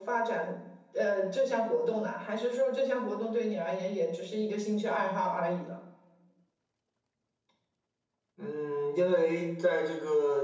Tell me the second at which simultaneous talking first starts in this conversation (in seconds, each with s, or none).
none